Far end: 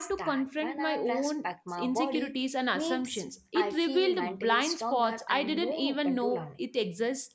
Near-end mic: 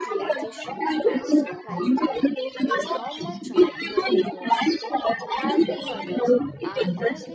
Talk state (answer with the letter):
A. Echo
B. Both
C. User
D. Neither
B